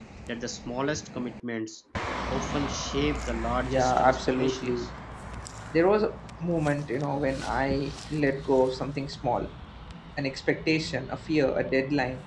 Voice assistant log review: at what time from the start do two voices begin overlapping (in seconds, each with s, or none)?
3.6 s